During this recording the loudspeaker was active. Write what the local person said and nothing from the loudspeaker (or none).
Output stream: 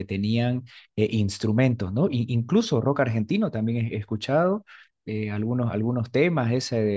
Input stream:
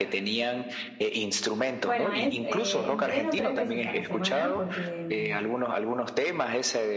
Bueno, es eh, entreno tres veces a la semana porque, mm,